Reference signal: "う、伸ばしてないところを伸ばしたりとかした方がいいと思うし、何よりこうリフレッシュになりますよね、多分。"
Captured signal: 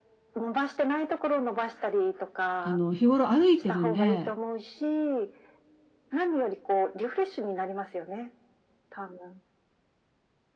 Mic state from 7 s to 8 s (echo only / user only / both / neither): echo only